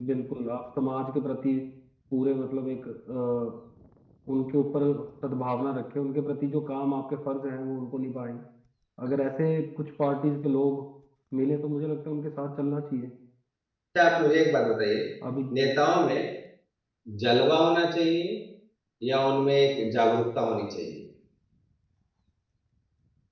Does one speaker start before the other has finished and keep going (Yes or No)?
No